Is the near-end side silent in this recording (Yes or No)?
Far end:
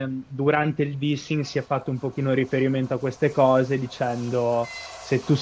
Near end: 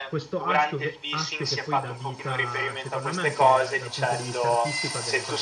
No